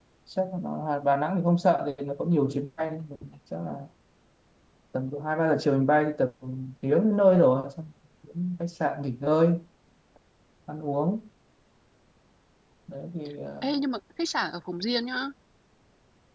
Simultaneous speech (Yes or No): No